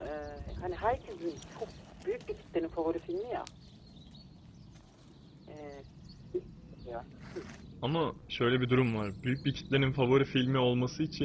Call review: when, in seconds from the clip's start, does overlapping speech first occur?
none

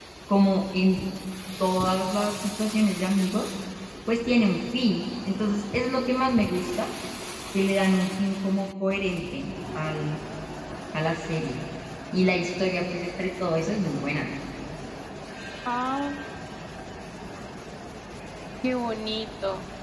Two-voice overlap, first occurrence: none

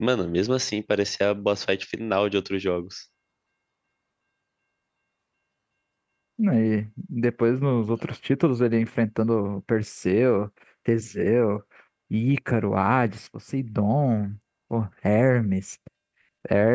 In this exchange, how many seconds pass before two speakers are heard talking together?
none

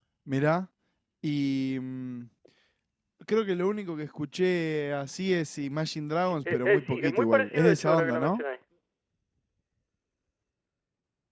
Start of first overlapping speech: 6.2 s

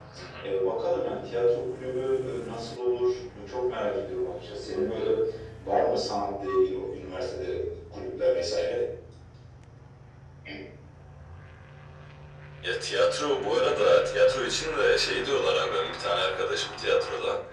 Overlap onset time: none

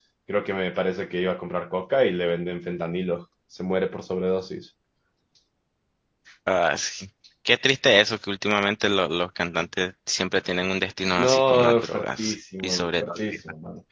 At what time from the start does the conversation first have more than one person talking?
11.2 s

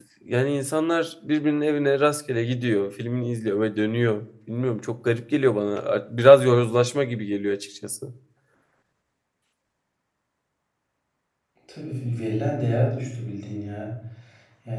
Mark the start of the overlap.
none

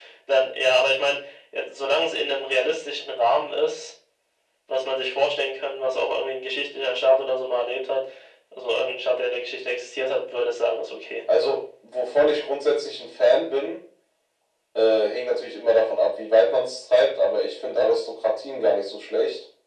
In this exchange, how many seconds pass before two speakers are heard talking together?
none

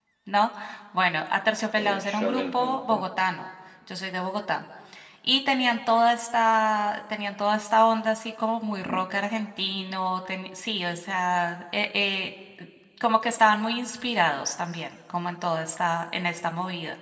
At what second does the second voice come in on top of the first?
1.8 s

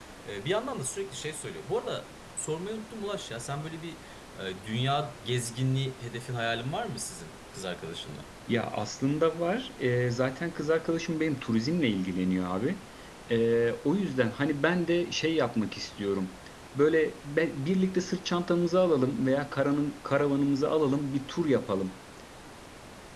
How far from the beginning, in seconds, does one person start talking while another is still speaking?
none

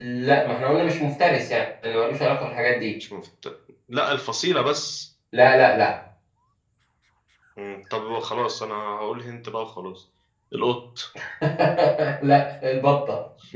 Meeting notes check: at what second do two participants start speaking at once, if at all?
none

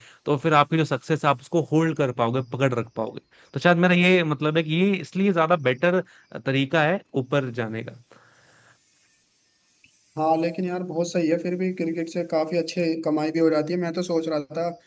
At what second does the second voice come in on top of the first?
none

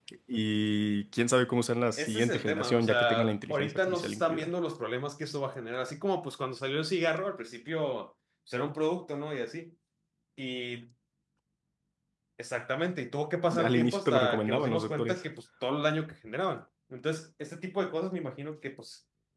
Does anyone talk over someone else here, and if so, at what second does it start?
2.0 s

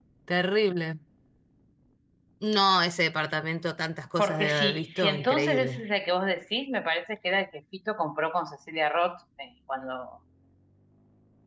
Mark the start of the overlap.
4.2 s

